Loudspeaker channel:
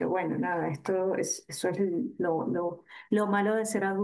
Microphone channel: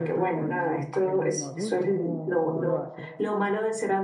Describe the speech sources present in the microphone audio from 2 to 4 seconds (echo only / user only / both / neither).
both